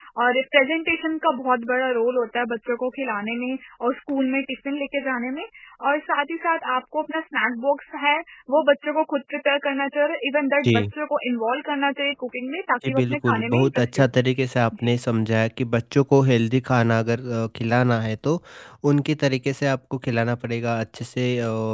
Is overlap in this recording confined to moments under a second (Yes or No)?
No